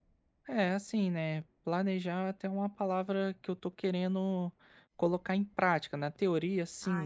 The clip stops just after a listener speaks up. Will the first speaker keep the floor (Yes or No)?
Yes